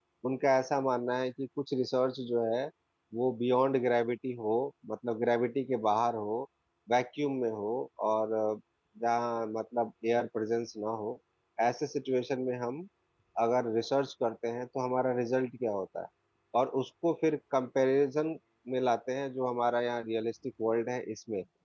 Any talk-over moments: No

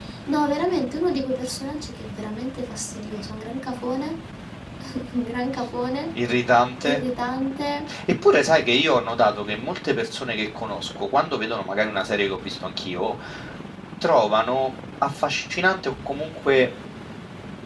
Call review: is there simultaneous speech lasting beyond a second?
No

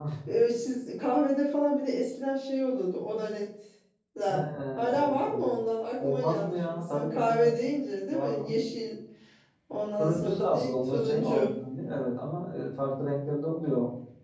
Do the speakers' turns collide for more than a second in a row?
Yes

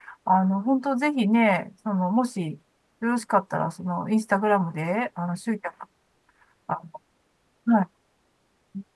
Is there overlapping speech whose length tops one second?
No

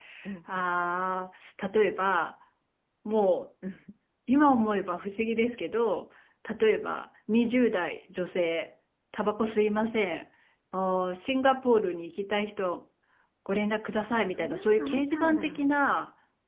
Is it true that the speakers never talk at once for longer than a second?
No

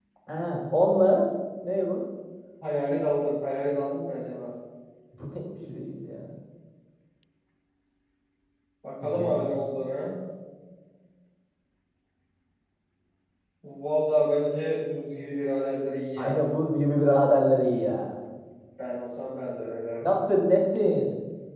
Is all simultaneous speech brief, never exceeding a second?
Yes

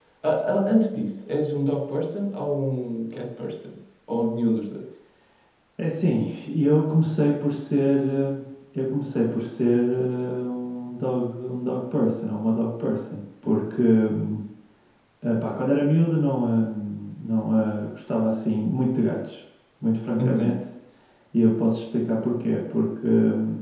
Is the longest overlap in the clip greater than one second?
No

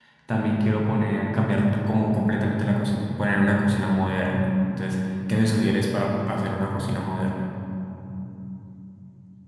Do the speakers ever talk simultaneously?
No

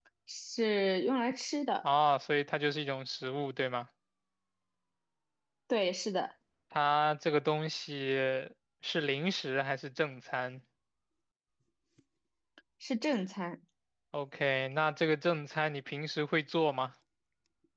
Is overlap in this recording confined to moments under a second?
Yes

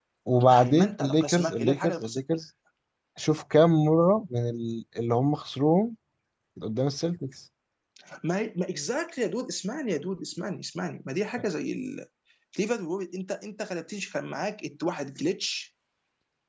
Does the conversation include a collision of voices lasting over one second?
Yes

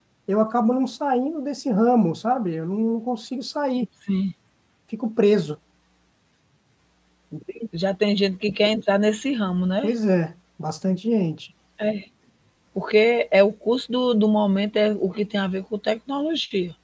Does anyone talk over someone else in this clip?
No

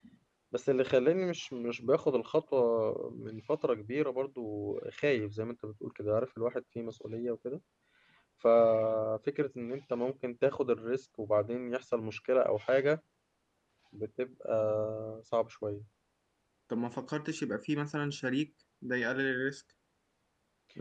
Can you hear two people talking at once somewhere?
No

